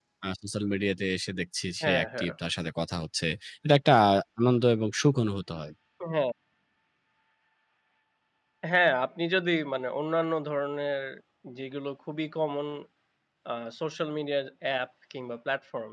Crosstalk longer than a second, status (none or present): none